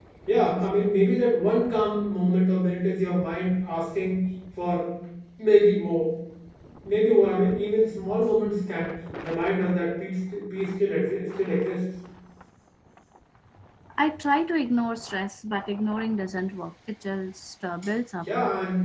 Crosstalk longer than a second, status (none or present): none